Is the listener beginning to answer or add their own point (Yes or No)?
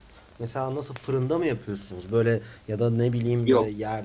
No